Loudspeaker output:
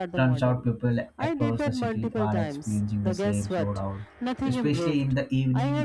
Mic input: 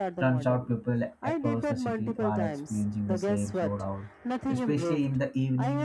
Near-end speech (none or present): none